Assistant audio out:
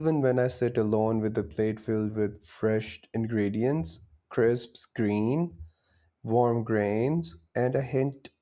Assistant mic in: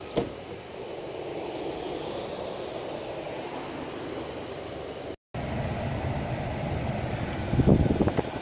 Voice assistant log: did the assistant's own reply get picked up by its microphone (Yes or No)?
No